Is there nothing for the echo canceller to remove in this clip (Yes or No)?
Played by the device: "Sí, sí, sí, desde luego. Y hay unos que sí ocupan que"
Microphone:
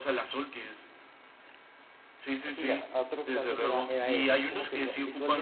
No